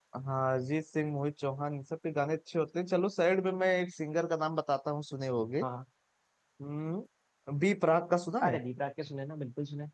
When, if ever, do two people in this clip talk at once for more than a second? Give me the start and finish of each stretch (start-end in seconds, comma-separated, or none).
none